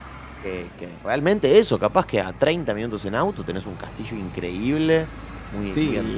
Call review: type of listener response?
taking over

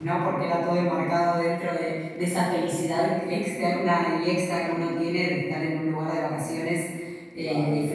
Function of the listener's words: listening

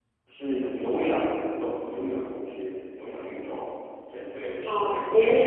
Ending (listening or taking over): taking over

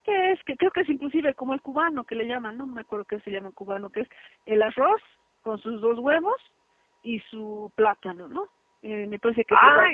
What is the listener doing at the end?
listening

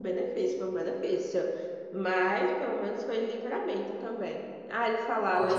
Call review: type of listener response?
listening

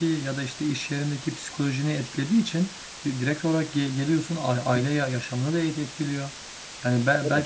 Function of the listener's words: listening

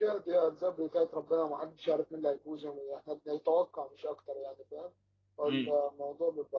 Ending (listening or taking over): listening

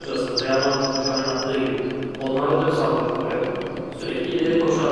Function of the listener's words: listening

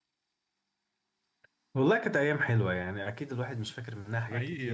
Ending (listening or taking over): listening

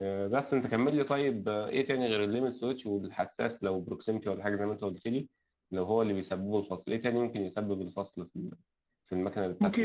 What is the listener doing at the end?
taking over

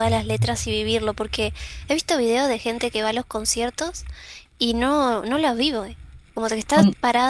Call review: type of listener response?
listening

